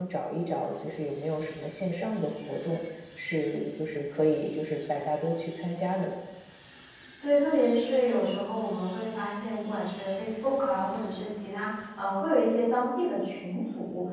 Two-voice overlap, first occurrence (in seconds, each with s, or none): none